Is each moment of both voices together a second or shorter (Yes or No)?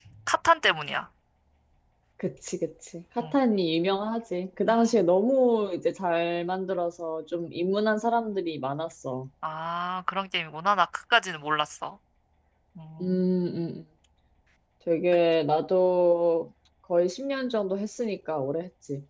Yes